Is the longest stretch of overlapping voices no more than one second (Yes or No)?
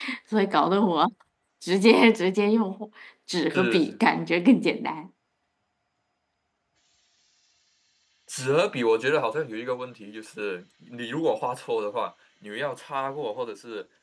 Yes